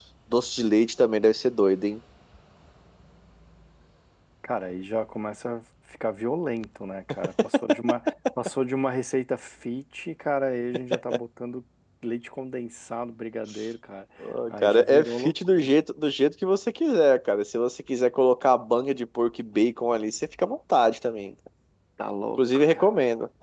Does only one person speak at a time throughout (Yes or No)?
No